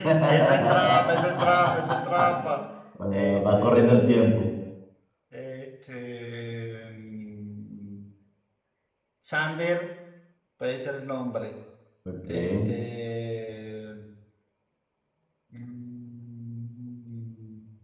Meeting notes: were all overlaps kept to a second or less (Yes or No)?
No